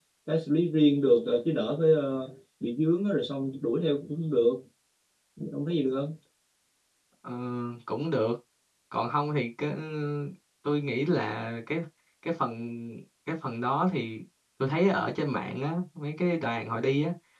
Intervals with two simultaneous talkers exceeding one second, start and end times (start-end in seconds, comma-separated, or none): none